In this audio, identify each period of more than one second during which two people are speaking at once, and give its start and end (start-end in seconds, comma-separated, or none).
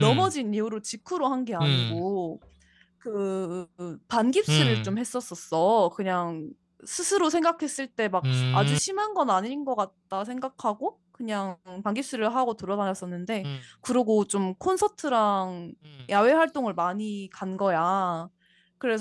none